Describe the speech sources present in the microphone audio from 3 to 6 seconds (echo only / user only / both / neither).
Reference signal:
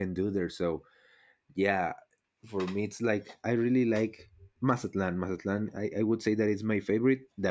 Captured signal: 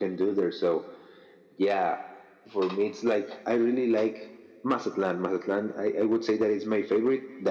echo only